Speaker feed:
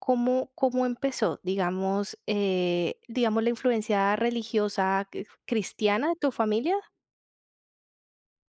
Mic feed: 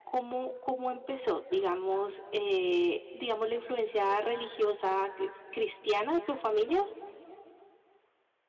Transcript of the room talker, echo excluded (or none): none